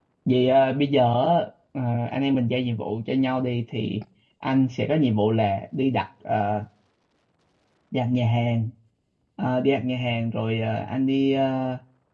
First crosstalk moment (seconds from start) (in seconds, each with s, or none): none